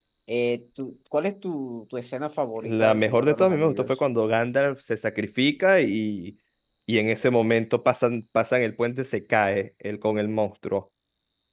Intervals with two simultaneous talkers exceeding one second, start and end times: 2.6-4.0

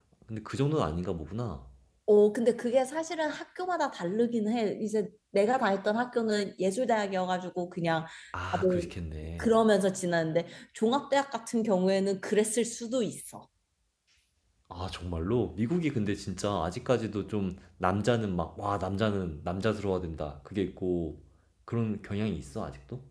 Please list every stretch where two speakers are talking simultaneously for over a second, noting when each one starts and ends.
none

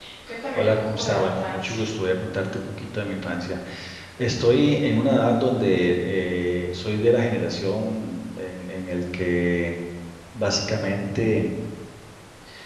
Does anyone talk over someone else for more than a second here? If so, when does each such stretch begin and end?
0.6-1.8

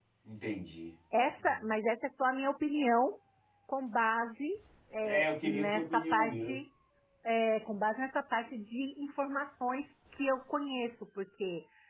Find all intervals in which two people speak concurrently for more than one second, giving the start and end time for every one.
5.0-6.5

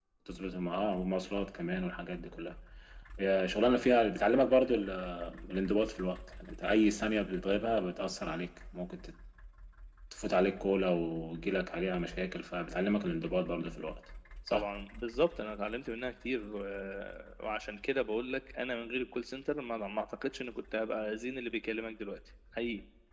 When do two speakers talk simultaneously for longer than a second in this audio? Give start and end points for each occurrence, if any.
none

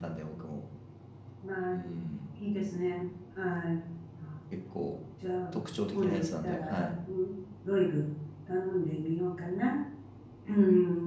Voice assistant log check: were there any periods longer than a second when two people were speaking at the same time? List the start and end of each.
5.5-6.9

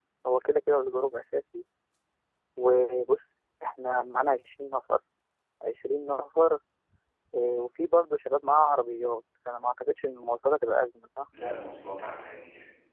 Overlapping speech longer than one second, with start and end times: none

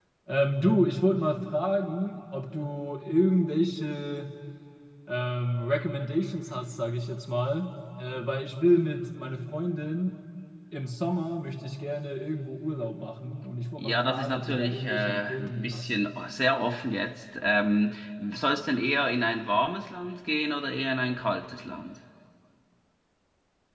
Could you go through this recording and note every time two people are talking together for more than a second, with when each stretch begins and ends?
13.8-15.9

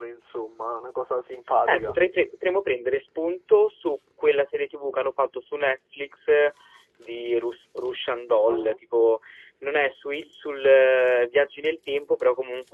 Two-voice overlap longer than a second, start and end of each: none

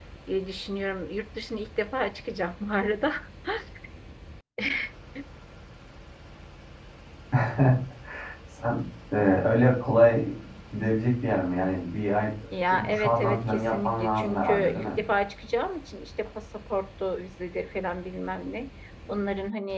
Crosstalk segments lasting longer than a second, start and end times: 12.7-14.9

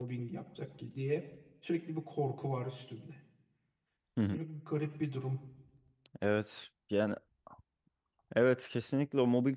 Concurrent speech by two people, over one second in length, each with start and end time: none

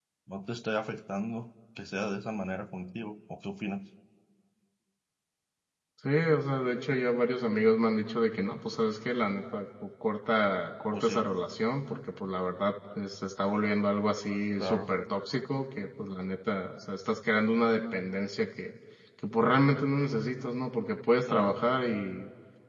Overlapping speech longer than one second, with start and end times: none

